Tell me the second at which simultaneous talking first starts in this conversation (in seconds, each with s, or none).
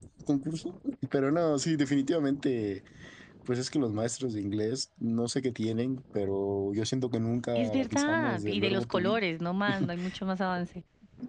7.6 s